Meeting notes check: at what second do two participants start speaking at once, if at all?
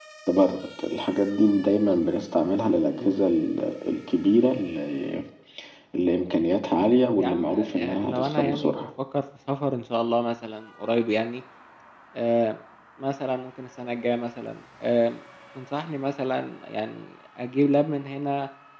7.1 s

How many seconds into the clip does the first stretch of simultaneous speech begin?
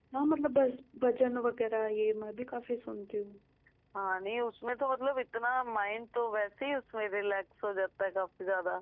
none

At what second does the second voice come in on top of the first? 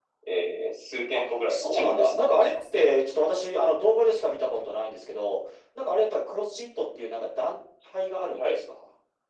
1.1 s

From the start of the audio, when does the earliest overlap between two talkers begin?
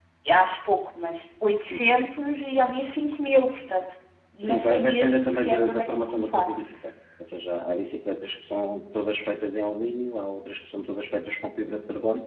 4.4 s

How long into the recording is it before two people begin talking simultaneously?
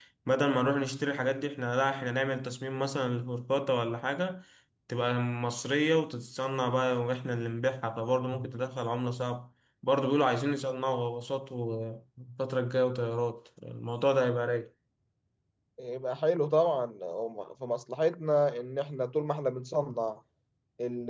none

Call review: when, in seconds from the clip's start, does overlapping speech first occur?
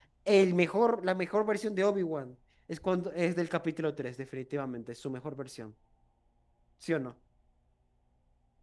none

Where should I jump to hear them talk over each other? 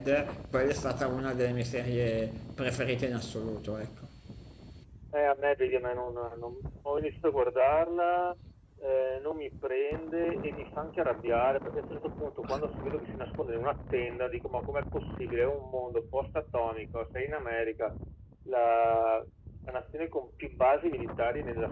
none

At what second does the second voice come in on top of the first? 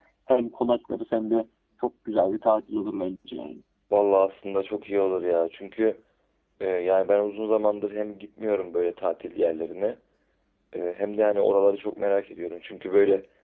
none

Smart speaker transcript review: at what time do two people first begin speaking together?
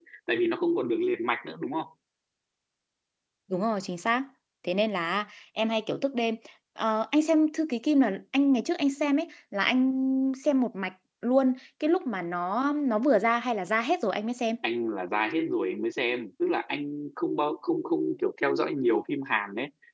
none

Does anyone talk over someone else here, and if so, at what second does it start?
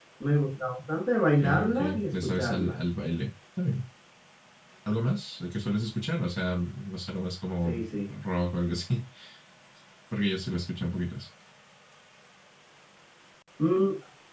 1.4 s

